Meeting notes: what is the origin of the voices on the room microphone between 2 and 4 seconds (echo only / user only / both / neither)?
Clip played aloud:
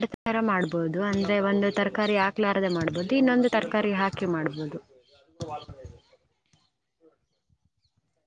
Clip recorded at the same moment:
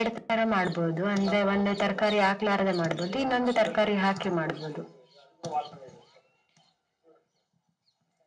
echo only